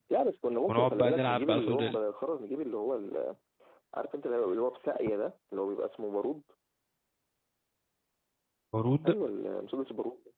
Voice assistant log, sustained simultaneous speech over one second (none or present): present